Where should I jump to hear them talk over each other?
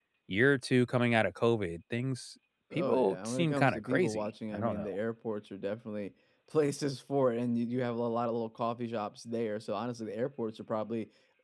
2.7 s

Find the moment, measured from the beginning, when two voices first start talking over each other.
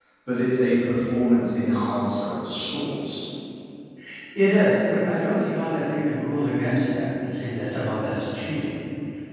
none

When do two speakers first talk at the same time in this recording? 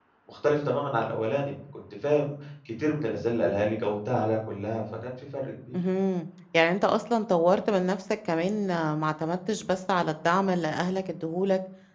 none

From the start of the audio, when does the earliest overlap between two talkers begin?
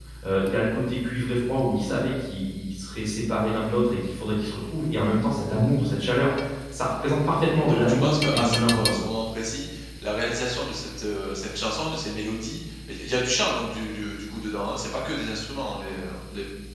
7.7 s

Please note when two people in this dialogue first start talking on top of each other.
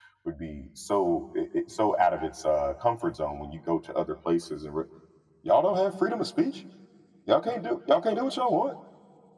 none

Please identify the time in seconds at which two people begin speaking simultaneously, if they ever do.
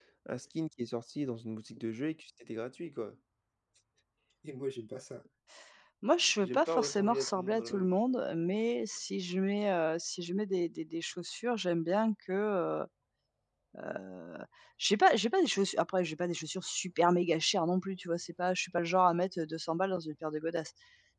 6.4 s

